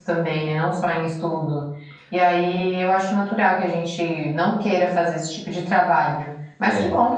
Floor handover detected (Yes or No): No